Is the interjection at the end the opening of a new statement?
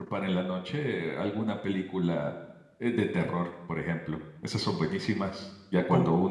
No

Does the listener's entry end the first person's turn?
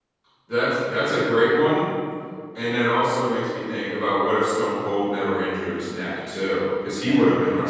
No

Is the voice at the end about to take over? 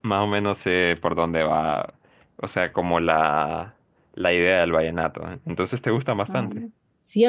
Yes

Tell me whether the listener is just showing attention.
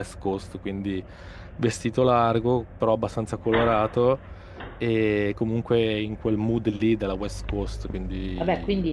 No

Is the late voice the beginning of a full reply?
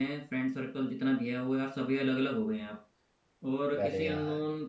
No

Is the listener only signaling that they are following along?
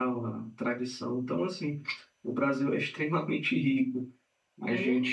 Yes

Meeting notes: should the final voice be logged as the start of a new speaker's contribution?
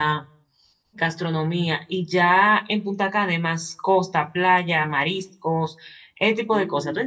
Yes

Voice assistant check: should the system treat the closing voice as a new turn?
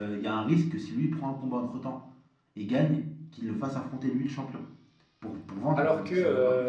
Yes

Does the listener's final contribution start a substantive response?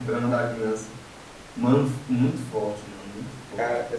No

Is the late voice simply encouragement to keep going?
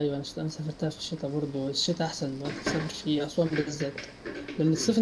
Yes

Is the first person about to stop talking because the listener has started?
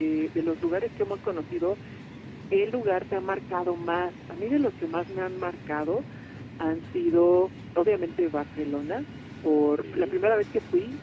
No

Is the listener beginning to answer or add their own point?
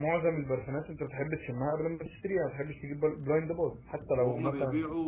Yes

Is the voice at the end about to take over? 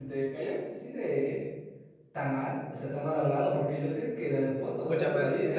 Yes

